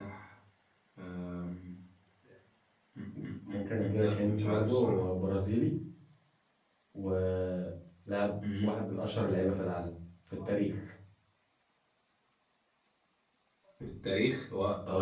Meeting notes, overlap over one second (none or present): present